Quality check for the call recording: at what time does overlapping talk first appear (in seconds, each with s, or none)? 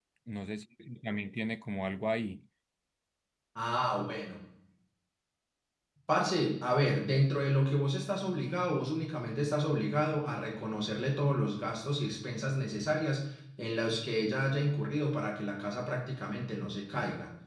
none